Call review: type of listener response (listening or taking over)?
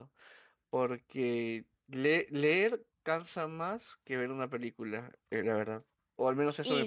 taking over